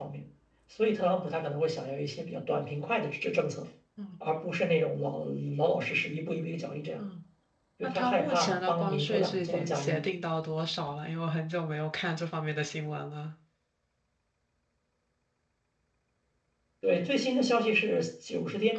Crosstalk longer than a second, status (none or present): present